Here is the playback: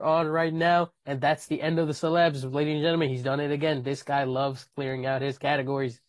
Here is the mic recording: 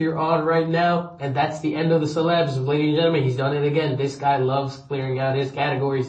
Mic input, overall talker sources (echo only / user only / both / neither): echo only